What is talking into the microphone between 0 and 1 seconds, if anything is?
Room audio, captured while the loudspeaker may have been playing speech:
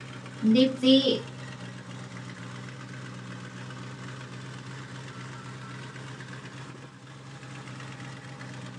user only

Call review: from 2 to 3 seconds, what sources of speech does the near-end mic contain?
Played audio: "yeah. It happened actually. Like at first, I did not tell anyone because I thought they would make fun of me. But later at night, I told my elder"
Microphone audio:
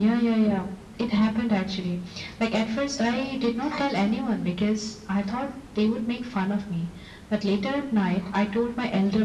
echo only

